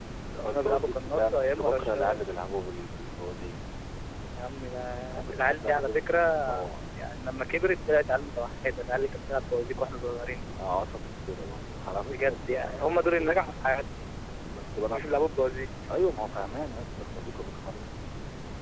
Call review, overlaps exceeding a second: present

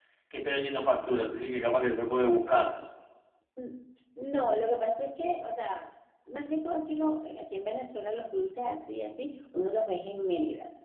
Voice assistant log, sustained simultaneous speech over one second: none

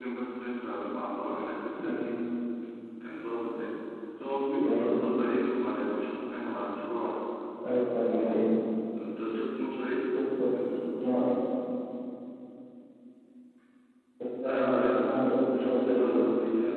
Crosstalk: present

